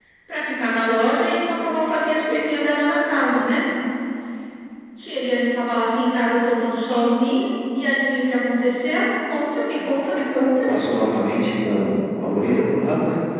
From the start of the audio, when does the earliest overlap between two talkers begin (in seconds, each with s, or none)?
none